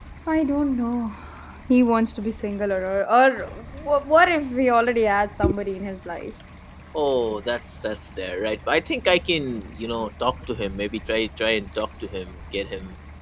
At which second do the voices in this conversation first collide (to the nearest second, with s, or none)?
none